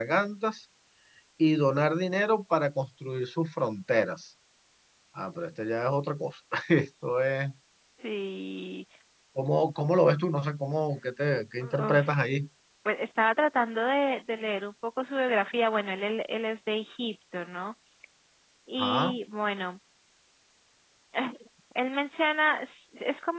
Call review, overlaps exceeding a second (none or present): none